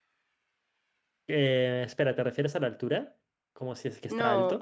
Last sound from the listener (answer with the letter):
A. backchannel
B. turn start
B